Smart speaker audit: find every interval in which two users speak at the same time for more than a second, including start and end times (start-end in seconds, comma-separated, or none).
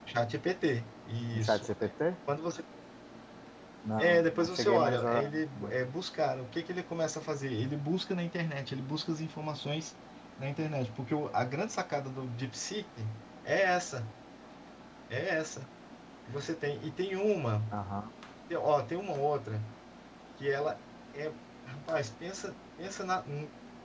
4.0-5.3